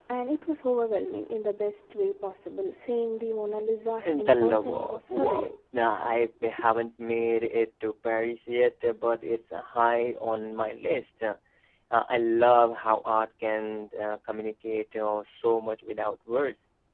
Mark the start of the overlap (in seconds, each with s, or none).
4.0 s